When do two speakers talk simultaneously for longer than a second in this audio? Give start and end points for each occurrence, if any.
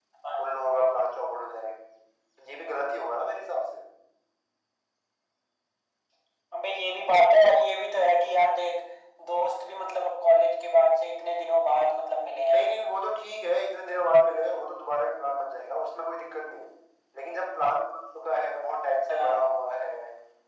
none

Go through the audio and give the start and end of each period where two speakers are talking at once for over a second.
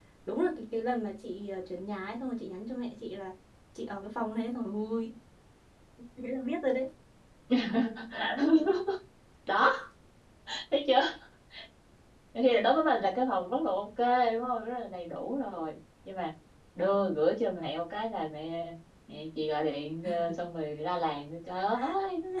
none

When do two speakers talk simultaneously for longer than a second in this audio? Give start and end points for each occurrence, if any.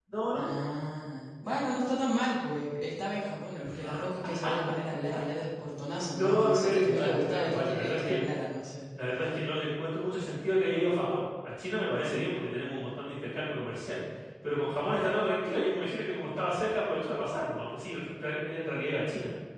6.2-8.2

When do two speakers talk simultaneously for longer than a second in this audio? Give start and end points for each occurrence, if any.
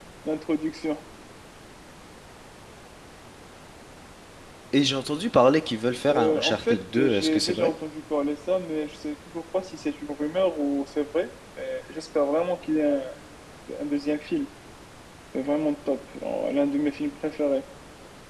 6.1-7.7

